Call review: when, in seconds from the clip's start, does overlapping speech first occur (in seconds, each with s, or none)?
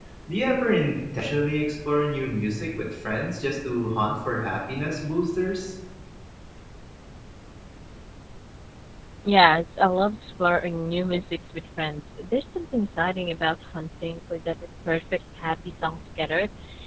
none